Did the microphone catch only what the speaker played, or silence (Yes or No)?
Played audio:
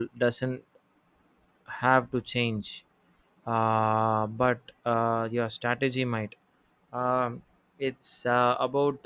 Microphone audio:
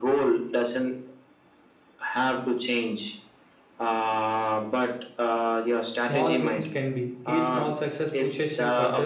No